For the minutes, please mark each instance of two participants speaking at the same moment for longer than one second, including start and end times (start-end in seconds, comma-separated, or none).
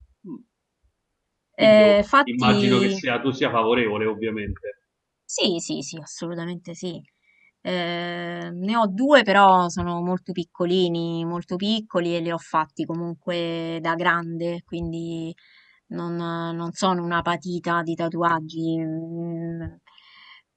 1.6-3.0